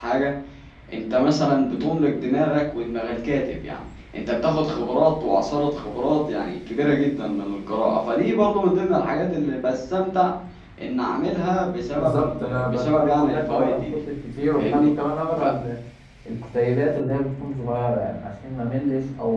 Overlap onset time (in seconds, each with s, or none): 11.9 s